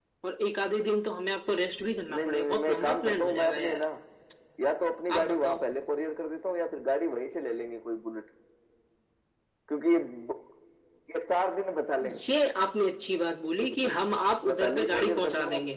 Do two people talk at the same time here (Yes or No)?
Yes